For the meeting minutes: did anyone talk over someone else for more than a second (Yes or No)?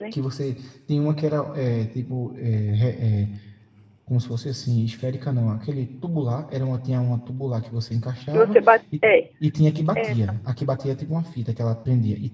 No